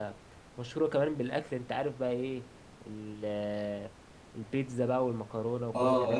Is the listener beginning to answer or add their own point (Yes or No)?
Yes